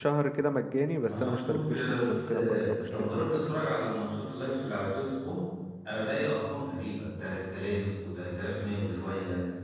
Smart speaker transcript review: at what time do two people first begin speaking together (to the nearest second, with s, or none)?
1 s